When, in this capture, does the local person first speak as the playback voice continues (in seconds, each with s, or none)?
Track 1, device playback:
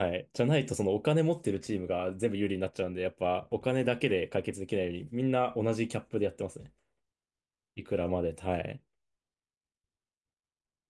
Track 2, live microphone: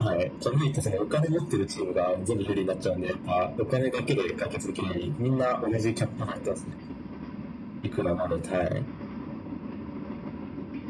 none